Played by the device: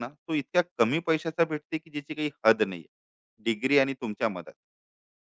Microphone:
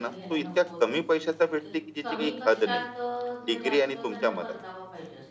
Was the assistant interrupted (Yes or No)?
Yes